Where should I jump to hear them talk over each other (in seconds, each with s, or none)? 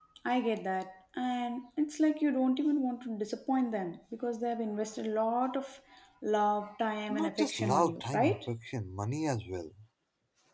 7.1 s